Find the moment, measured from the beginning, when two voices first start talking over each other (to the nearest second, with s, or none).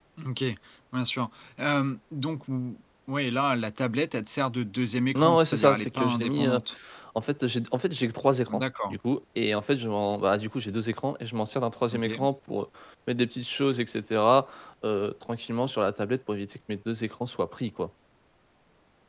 5 s